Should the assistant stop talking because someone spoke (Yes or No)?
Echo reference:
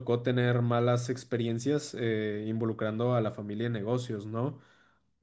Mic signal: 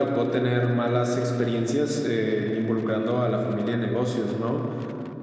No